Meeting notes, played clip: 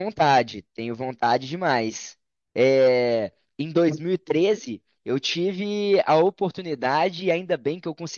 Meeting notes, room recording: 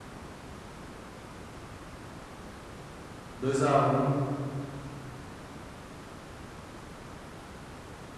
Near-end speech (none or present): present